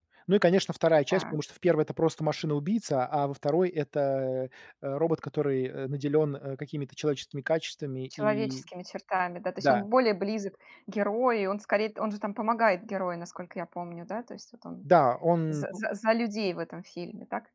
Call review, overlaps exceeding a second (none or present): none